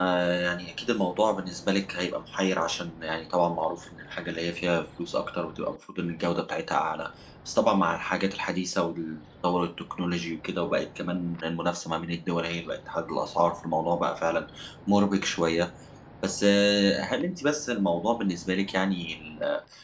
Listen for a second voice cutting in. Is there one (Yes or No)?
No